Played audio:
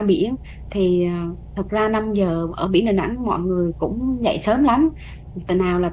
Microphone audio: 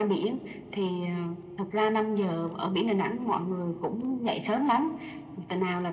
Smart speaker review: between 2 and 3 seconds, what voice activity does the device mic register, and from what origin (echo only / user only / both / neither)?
echo only